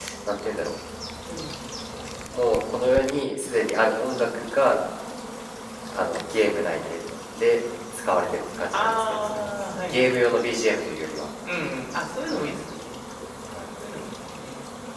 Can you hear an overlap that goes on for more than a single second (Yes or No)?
Yes